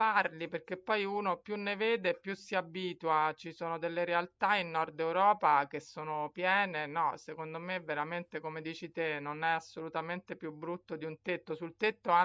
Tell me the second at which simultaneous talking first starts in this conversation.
none

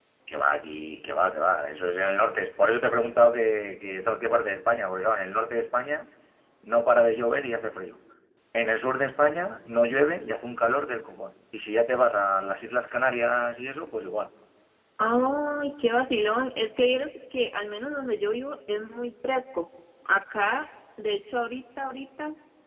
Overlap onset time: none

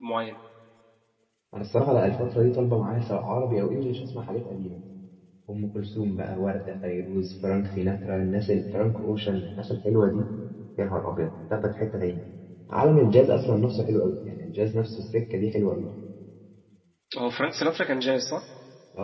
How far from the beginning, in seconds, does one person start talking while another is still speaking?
none

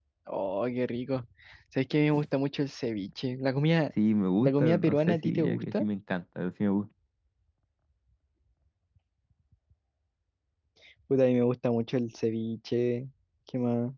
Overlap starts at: 4.4 s

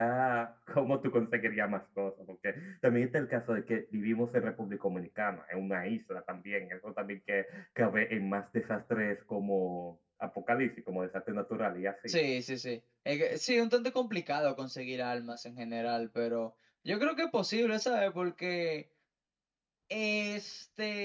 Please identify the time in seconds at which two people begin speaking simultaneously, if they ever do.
none

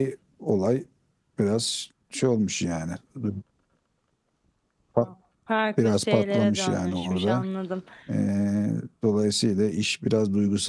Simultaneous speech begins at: 5.8 s

